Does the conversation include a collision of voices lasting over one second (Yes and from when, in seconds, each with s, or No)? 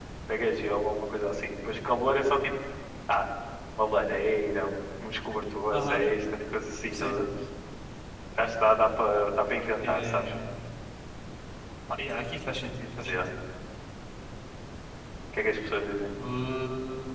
No